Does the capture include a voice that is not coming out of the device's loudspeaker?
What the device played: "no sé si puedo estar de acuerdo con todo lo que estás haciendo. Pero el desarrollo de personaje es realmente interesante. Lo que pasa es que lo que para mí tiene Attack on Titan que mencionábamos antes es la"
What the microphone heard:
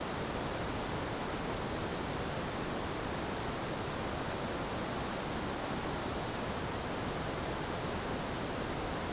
No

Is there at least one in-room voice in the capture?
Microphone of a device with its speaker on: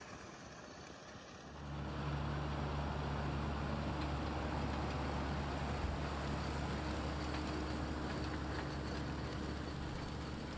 No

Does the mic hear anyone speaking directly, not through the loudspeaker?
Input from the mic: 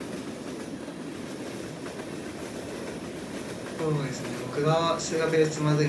Yes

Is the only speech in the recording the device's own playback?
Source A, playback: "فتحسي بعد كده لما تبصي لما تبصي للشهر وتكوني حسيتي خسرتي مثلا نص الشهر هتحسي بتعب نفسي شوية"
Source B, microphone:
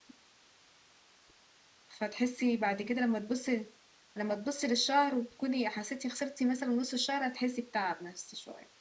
Yes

